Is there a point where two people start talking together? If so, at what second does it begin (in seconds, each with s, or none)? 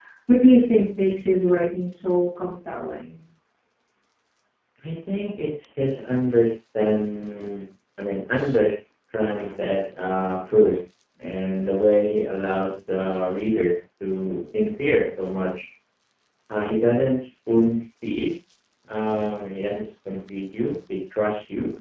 none